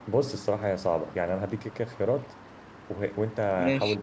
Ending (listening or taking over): listening